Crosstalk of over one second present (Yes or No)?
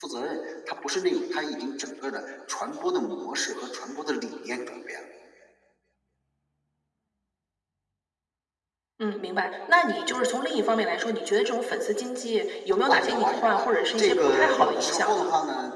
Yes